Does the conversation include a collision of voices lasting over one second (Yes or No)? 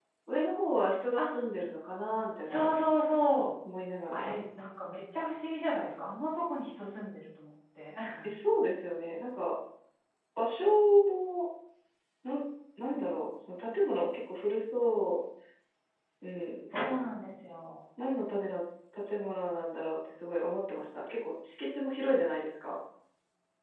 No